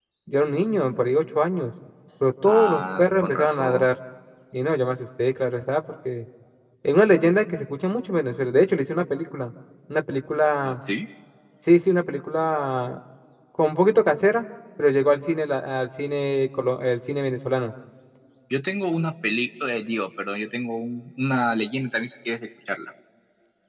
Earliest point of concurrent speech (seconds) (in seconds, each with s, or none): 2.4 s